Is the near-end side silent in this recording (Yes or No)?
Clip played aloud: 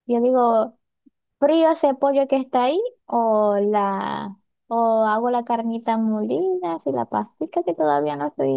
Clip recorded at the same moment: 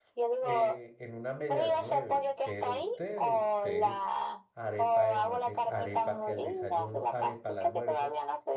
No